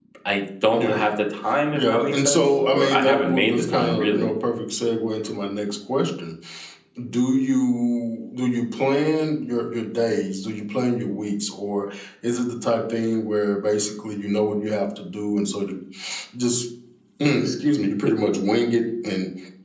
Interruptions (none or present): present